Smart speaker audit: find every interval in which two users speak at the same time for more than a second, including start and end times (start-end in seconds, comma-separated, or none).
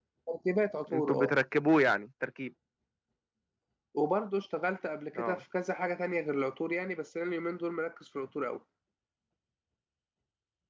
none